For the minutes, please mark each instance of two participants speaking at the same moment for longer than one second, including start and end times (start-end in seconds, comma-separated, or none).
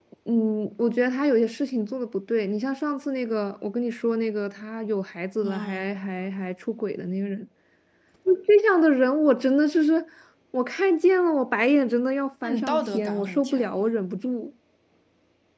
12.4-13.9